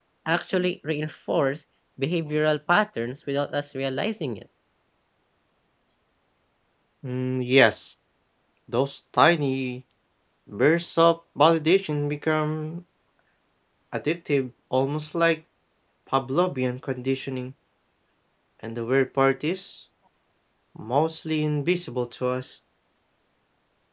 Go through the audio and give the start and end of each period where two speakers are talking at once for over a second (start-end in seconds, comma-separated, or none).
none